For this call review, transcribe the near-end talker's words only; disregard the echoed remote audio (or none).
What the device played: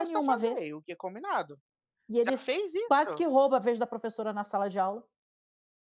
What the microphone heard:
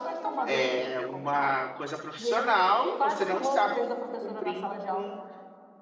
eh, uma coisa profissional, você não está cump cumprindo com,